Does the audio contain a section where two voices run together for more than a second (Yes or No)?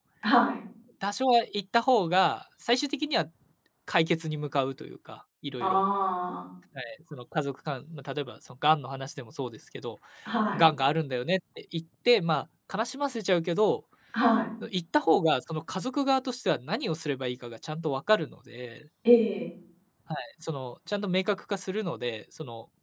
No